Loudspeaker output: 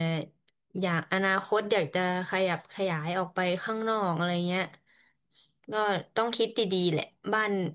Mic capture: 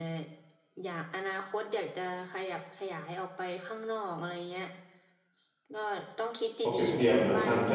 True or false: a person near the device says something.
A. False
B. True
B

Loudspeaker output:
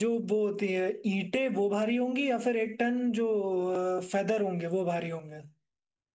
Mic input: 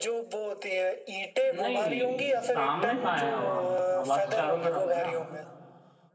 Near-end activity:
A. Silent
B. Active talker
B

